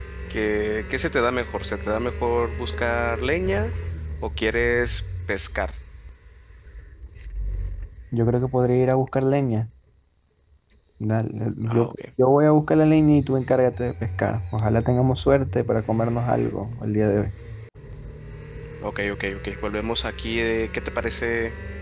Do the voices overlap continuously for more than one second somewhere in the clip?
No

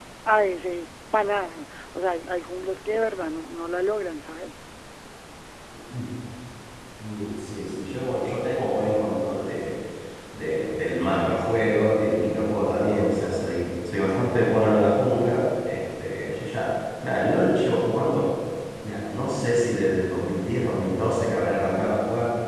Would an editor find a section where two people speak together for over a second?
No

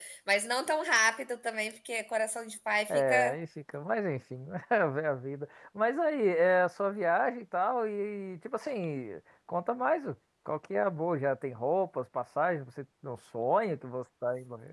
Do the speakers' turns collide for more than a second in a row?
No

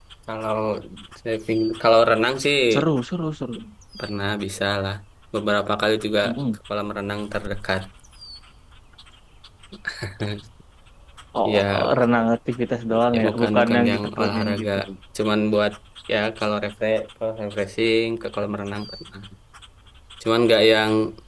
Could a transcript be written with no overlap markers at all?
No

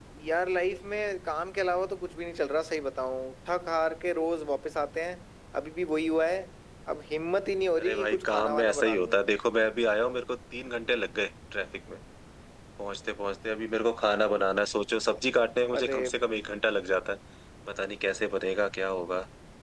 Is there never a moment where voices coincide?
No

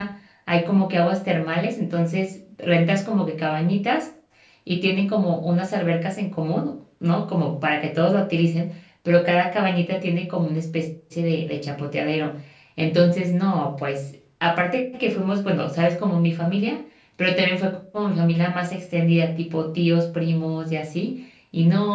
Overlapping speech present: No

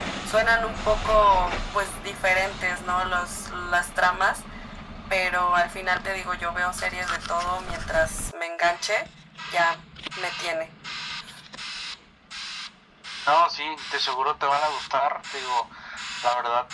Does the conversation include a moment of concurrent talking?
No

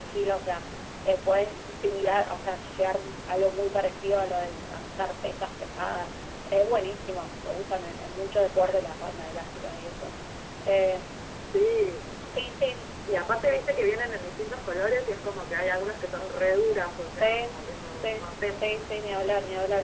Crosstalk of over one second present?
Yes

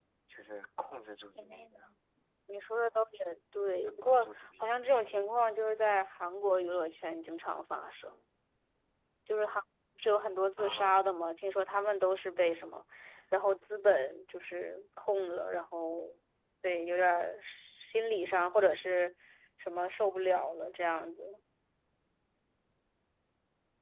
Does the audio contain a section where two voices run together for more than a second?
Yes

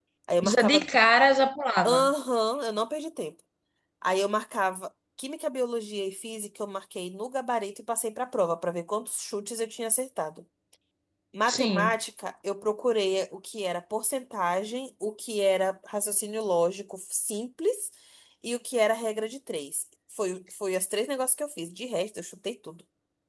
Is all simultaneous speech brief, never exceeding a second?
Yes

